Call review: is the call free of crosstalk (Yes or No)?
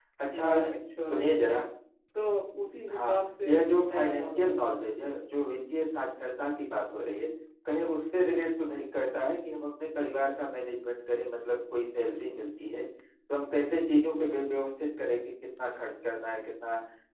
No